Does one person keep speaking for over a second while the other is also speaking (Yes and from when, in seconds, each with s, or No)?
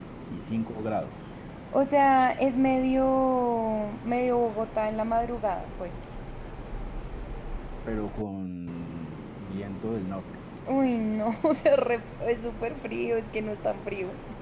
No